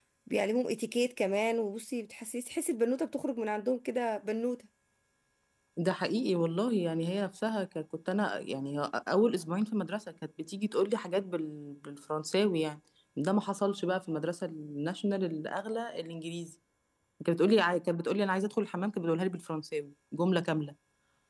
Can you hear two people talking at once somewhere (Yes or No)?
No